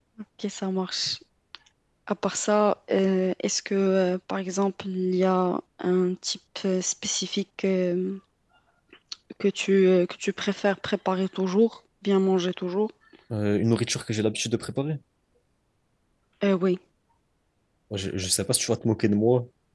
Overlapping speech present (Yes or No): No